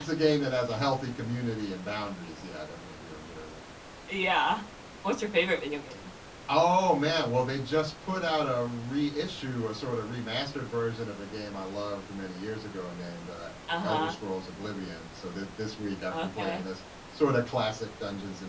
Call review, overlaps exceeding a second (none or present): none